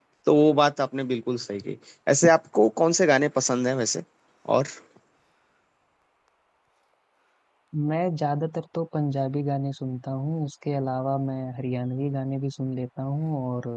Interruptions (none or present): none